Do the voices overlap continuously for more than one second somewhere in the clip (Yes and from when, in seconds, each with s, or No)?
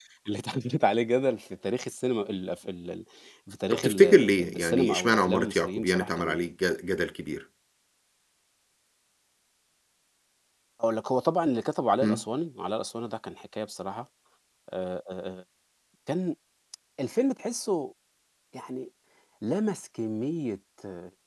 Yes, from 3.7 s